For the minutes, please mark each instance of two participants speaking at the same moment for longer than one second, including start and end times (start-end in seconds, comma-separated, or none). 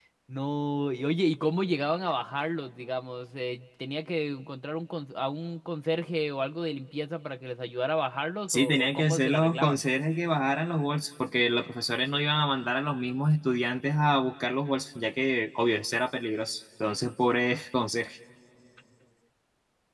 8.5-9.8